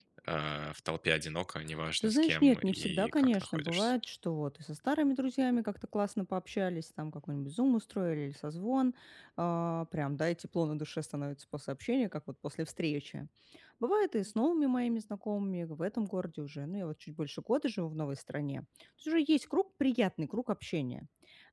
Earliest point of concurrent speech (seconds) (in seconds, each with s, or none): 2.0 s